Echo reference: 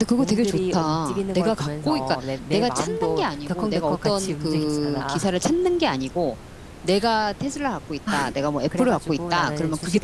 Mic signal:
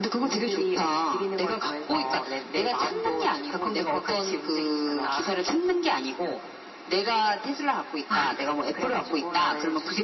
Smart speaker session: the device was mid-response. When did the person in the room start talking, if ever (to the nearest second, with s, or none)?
none